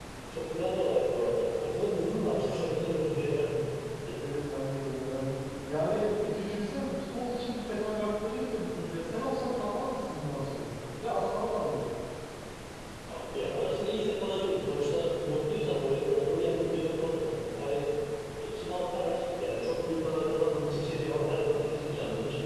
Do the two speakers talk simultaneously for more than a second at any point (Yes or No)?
No